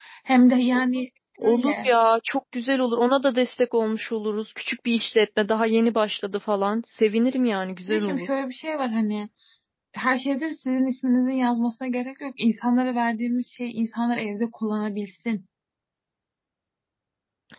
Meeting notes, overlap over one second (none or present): none